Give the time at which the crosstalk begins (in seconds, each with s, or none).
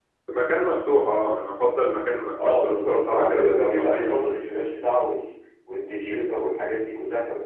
2.4 s